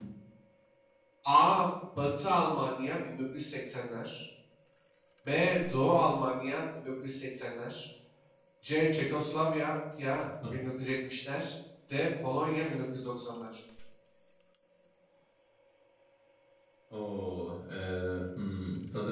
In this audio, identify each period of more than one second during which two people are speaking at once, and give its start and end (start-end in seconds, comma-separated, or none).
none